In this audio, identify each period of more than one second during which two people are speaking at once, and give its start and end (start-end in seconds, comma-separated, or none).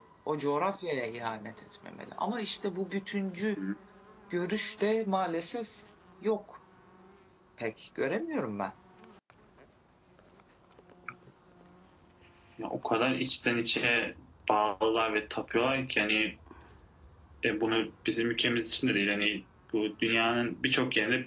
none